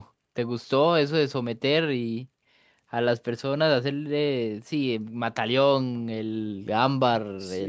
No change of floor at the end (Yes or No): No